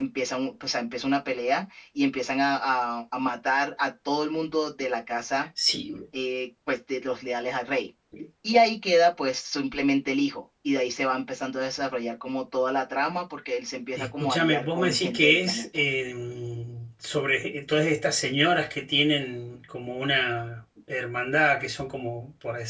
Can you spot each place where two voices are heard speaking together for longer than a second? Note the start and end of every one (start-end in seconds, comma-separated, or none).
14.0-15.7